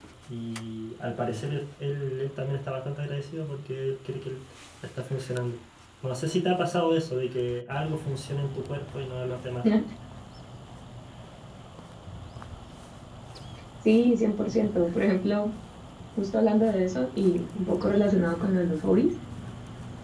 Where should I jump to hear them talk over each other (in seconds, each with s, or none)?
none